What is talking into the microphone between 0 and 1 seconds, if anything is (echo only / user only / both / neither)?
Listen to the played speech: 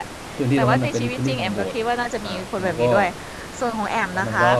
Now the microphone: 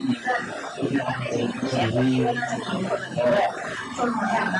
echo only